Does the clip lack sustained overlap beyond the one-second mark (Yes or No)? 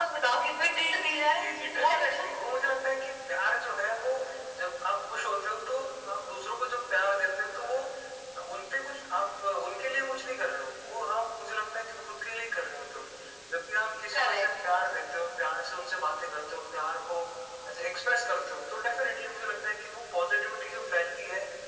Yes